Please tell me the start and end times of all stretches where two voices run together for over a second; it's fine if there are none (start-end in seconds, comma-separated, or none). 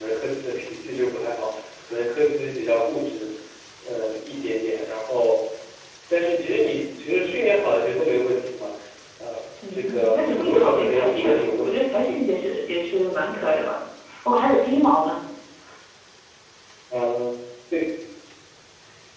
9.7-11.7